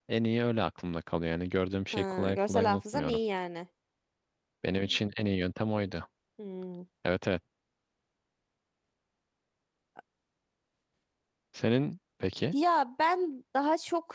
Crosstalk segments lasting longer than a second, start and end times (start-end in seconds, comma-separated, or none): 1.9-3.2